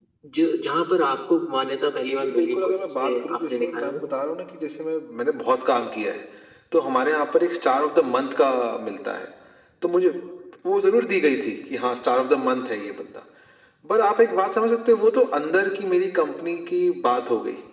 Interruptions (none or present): present